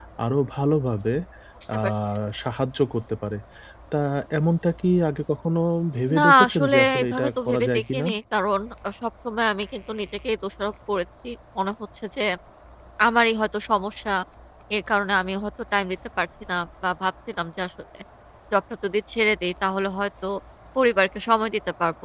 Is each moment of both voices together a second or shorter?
No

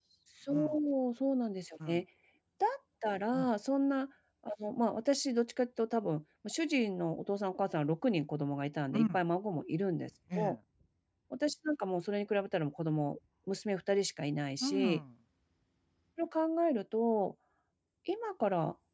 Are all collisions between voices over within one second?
Yes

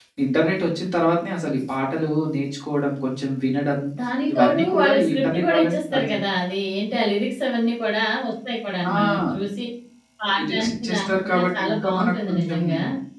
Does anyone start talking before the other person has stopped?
Yes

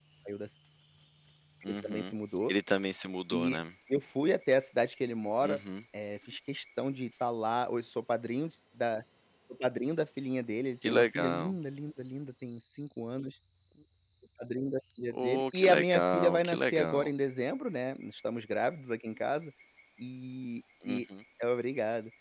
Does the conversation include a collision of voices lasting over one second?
Yes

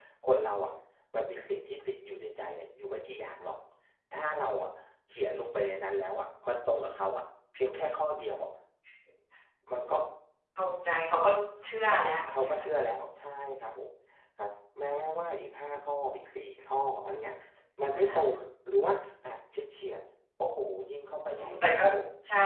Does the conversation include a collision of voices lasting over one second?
No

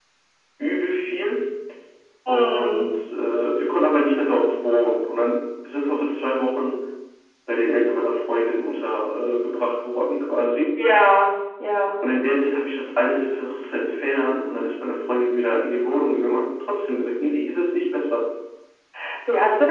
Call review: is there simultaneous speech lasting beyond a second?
No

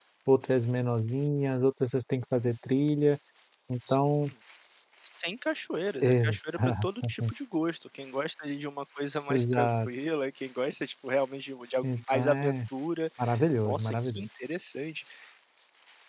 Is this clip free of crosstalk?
No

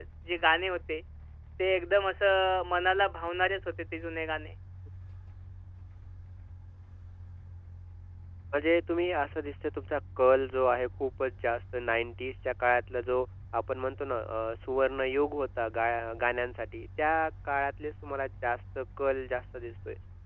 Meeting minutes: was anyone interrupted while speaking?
No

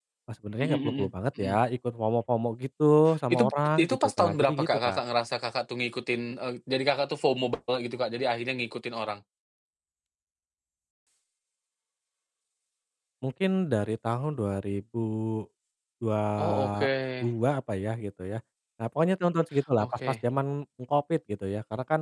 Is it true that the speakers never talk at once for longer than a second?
No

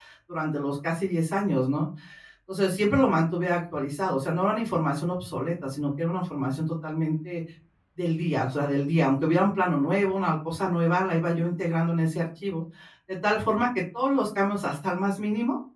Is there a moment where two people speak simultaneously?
No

